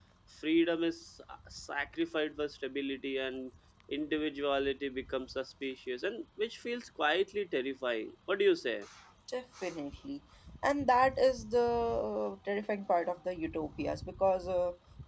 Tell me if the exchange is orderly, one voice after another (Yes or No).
Yes